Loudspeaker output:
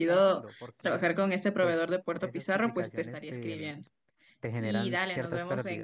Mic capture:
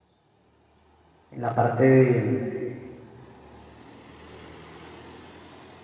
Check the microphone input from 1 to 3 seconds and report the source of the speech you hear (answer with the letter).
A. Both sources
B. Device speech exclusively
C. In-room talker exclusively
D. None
C